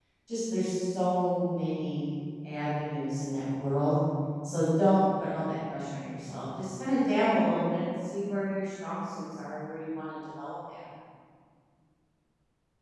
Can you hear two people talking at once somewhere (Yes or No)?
No